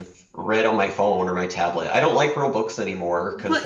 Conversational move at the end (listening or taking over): taking over